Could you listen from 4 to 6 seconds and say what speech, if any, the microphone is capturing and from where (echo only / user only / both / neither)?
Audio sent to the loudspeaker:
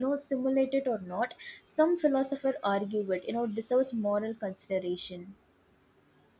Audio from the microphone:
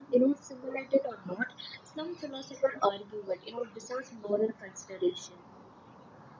echo only